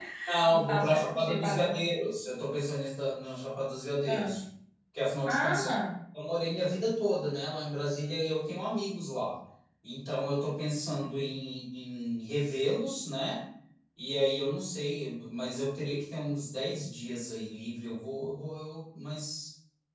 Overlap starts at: 0.5 s

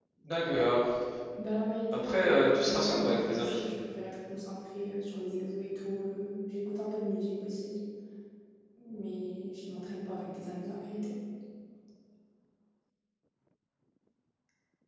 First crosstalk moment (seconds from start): 1.9 s

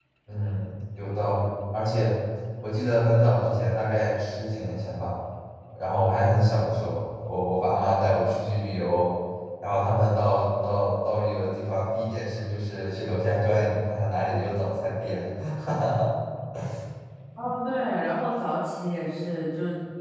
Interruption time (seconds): none

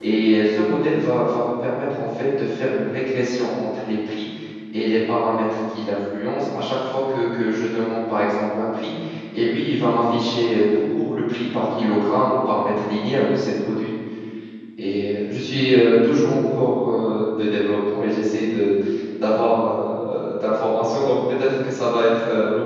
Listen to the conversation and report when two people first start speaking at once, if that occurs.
none

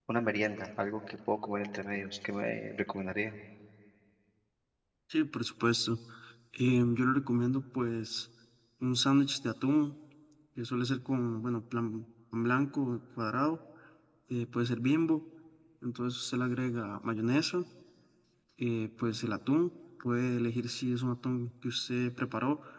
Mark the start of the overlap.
none

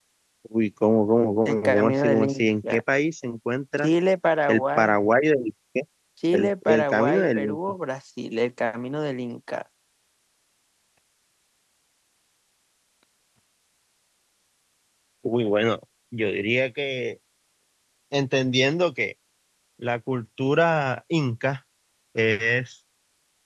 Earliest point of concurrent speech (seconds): 1.4 s

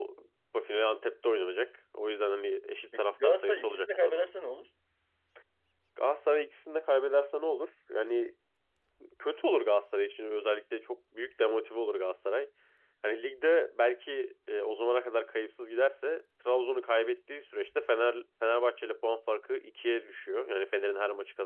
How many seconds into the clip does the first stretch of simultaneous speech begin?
2.9 s

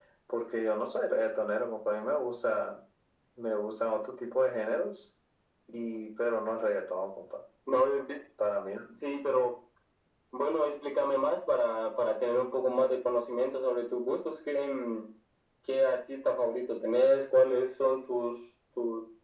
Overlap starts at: none

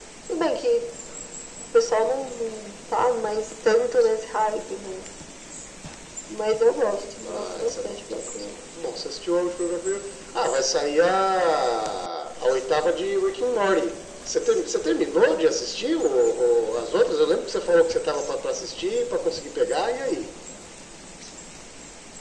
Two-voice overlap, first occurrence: 7.2 s

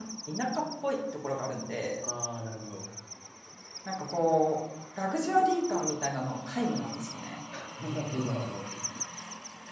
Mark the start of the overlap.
none

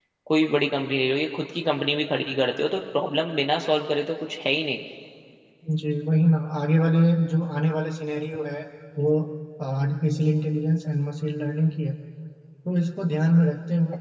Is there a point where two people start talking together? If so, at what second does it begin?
none

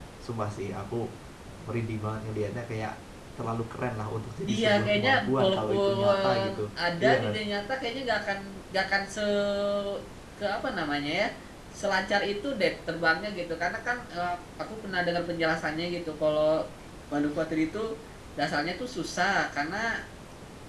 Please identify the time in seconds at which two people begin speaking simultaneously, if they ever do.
4.5 s

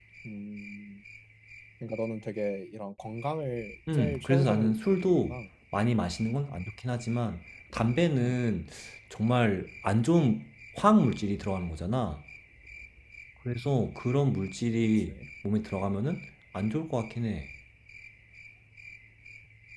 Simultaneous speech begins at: 3.9 s

